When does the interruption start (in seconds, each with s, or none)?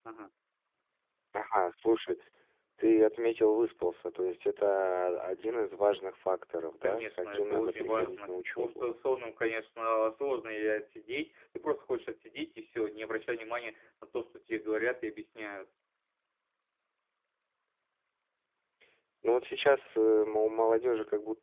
6.8 s